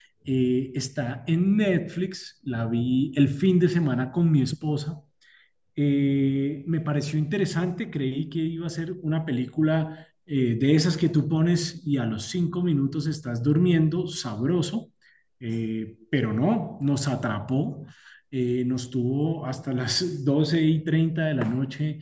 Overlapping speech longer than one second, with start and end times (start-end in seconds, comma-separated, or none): none